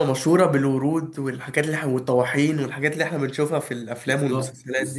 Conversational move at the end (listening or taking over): taking over